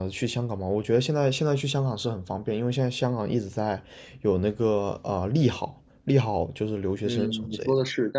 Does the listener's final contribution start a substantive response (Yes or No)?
Yes